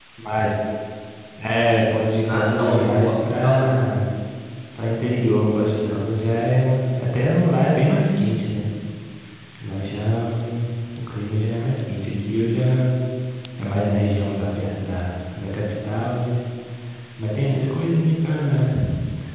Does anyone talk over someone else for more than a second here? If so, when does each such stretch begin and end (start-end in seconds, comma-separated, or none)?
2.2-3.7